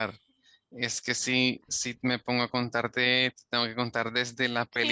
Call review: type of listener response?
taking over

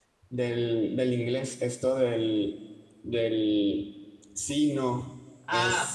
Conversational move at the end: taking over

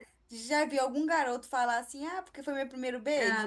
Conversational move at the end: taking over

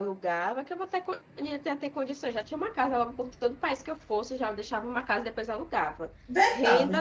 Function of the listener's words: taking over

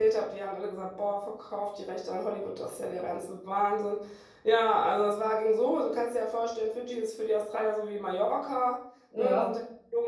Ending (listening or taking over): listening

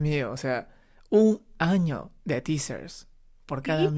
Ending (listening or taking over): taking over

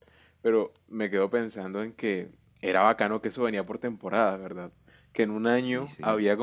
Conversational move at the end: listening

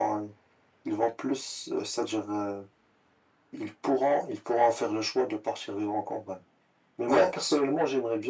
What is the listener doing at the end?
listening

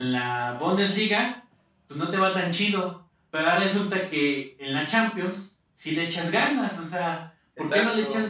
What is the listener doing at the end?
listening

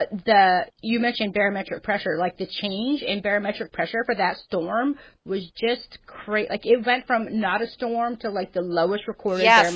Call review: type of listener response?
taking over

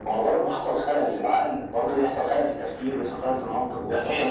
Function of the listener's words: taking over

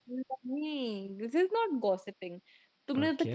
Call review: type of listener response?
listening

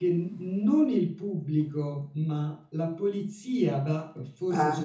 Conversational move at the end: listening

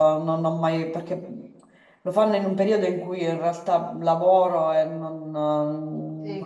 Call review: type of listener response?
taking over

